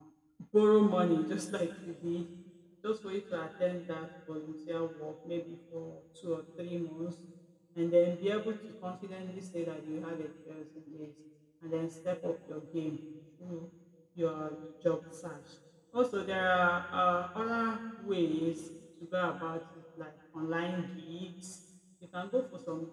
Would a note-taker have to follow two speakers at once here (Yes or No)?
No